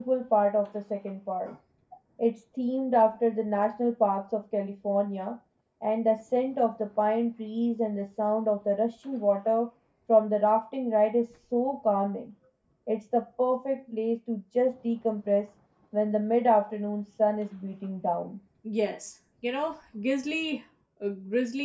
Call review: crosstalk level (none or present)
none